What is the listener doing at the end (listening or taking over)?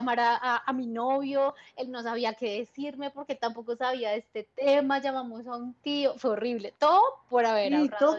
taking over